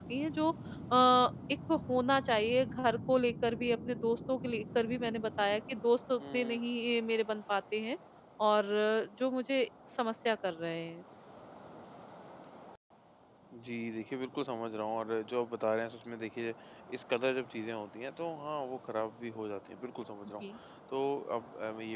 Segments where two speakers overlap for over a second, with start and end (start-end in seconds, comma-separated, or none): none